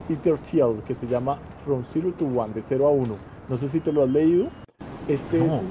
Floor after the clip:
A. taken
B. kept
B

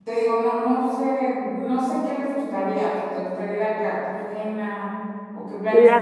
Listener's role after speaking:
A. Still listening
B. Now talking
B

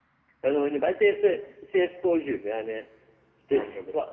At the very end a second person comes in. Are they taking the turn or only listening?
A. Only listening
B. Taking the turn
A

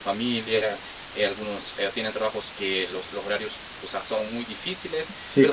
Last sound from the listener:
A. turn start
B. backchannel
B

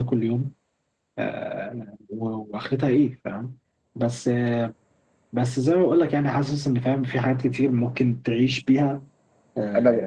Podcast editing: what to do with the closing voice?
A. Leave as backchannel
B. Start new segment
B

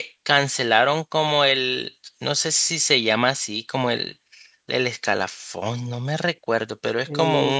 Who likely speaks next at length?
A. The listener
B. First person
A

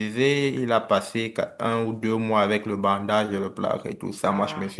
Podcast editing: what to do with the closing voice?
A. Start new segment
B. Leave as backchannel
B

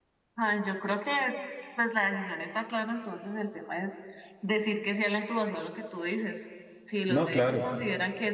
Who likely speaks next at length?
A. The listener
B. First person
B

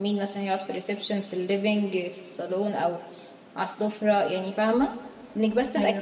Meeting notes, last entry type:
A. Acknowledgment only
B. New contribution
A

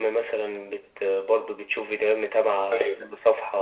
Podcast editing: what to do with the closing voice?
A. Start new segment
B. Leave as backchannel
B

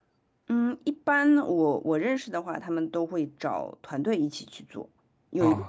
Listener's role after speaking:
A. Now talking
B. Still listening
B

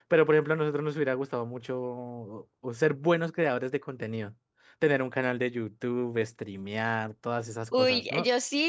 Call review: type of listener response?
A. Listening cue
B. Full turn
B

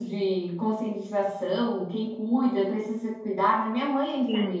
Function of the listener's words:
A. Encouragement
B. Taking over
B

